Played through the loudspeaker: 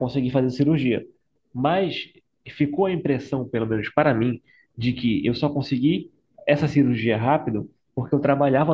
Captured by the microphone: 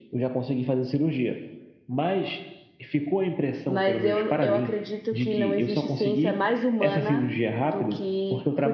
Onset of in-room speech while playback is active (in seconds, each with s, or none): 3.7 s